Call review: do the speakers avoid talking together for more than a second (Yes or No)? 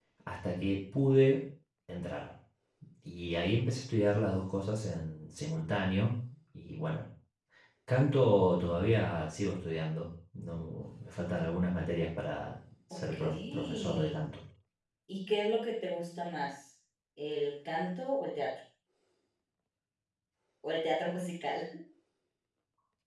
No